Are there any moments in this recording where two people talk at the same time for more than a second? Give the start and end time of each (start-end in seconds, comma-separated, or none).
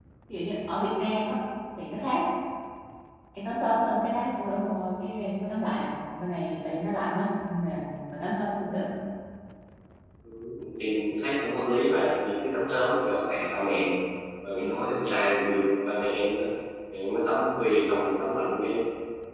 none